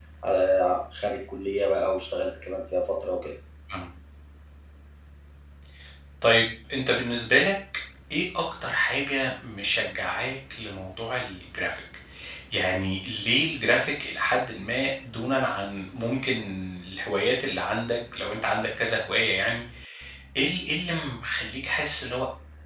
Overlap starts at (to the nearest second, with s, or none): none